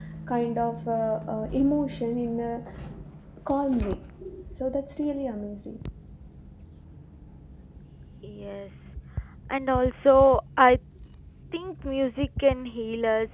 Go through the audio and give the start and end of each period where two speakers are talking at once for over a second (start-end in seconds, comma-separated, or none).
none